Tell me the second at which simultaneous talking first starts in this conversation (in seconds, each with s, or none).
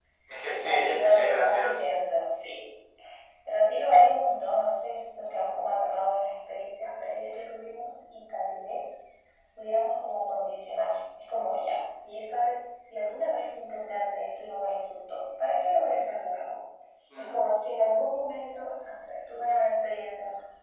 0.6 s